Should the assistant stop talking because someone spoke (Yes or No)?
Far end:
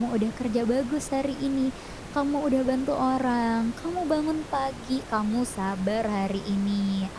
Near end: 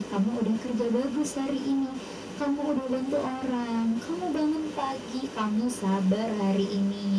No